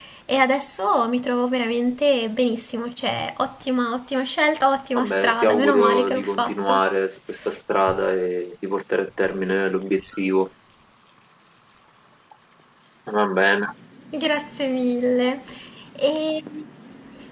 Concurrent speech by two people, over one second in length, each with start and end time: 5.0-6.8

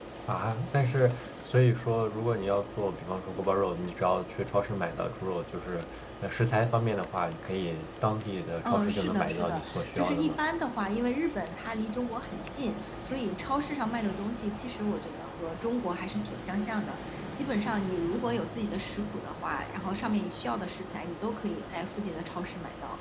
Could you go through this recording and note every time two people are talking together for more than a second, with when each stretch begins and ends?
8.6-10.4

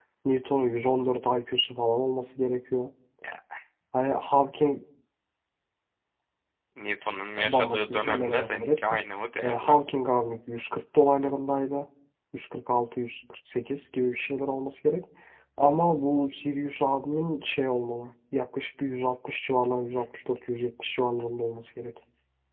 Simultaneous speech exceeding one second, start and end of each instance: 7.4-9.0

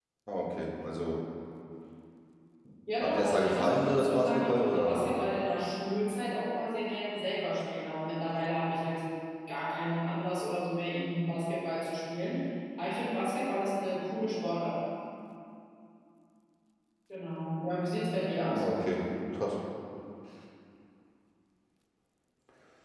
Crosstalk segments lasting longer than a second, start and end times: 3.0-5.0

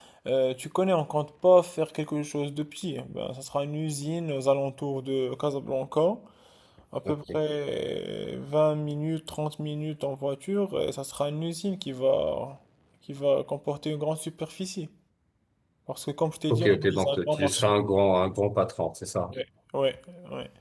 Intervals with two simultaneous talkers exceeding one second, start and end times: 16.5-17.7

